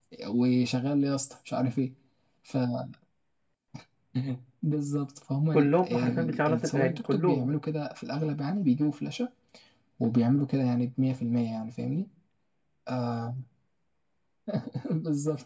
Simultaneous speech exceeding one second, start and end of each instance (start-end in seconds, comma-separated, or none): 5.5-7.5